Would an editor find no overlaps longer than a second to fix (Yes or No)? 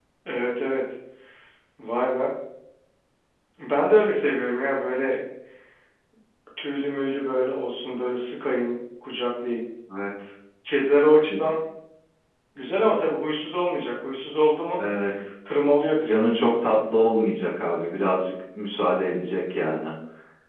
Yes